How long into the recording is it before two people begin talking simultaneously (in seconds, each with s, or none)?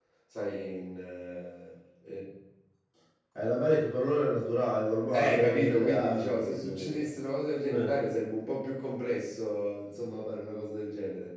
5.1 s